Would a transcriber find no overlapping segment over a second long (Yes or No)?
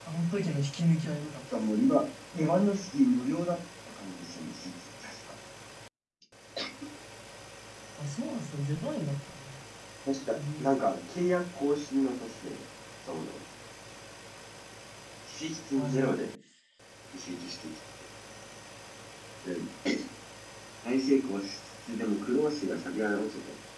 Yes